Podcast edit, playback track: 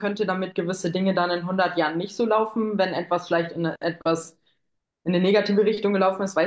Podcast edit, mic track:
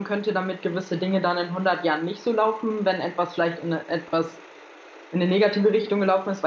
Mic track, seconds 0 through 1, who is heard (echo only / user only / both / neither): echo only